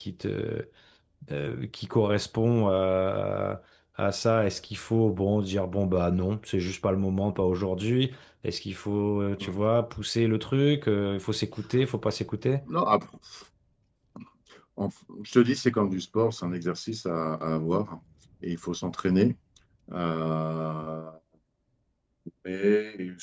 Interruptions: none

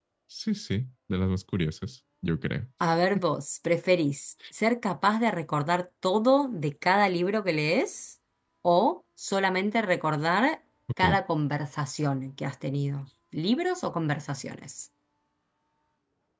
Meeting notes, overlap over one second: none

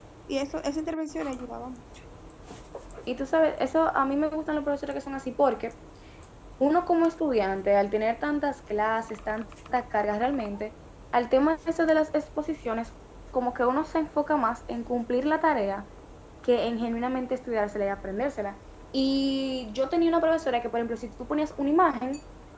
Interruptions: none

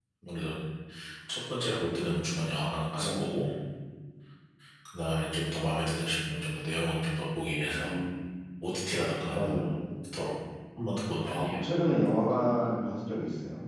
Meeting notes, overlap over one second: none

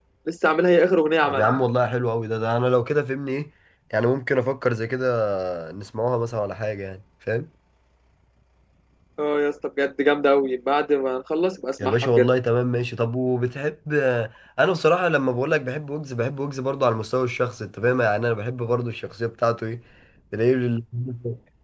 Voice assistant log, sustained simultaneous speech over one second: none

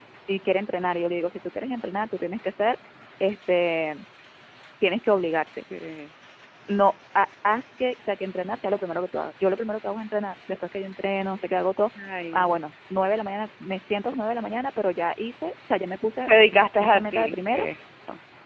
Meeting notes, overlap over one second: present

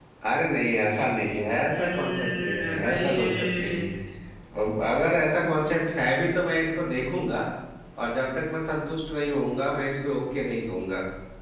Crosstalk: present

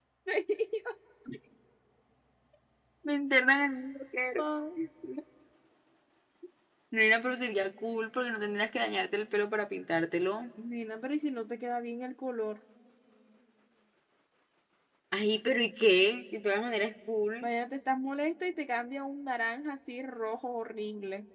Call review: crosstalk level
none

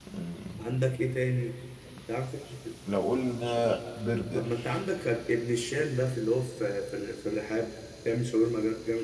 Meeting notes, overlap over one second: none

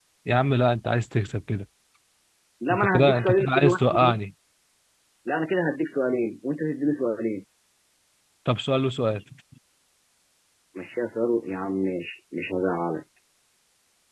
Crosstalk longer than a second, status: present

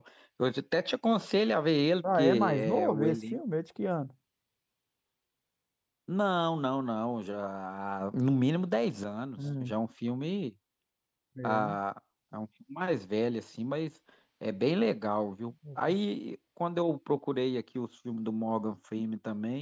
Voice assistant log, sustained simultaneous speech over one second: present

